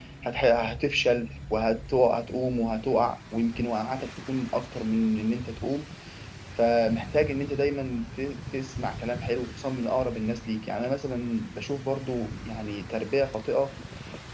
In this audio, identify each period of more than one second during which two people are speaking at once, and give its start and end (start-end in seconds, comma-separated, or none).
none